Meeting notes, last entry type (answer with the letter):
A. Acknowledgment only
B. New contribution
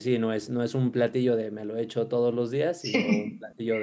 A